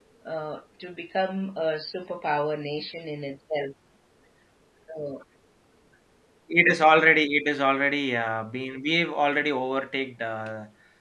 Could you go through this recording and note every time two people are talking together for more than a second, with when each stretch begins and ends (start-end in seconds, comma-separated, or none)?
none